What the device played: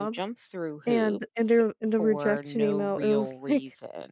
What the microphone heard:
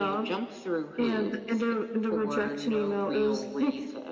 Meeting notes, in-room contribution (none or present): none